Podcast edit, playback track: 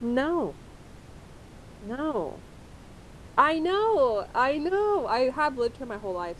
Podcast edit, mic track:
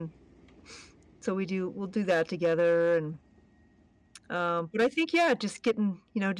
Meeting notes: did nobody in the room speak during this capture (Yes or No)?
No